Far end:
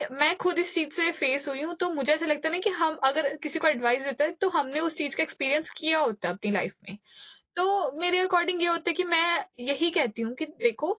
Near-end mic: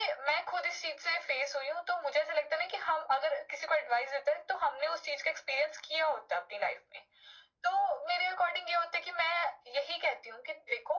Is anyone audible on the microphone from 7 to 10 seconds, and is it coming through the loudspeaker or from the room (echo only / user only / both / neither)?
echo only